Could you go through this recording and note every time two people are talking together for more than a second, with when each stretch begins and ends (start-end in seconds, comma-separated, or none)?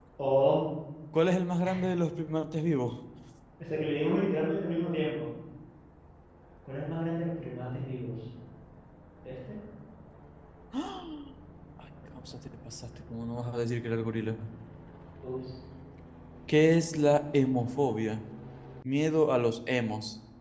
none